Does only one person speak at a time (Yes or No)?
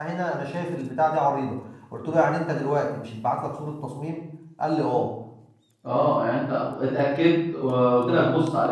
Yes